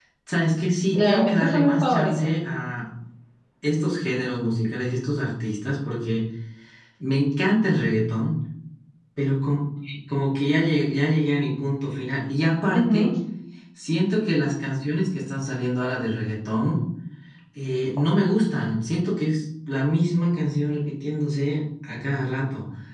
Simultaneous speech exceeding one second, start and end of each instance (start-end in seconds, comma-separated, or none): 0.9-2.3